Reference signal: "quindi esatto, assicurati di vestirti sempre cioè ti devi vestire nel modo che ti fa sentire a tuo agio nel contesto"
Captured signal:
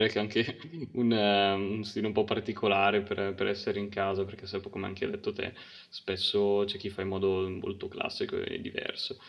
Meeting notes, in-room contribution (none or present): present